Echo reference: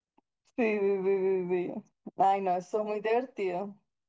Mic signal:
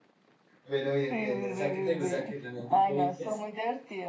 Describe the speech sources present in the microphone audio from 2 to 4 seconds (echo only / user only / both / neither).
both